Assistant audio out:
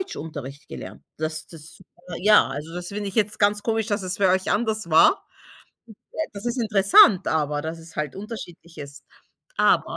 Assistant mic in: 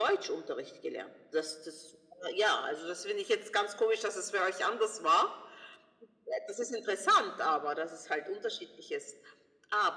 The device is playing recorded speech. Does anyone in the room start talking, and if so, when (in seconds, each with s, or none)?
none